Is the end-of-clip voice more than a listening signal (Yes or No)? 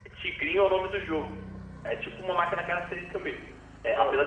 No